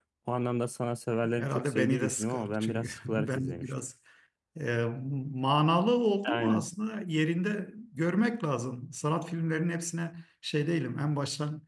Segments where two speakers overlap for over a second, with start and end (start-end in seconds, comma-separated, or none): 1.4-3.7